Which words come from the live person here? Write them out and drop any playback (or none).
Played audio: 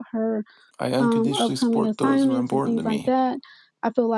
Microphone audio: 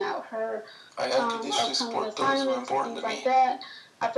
none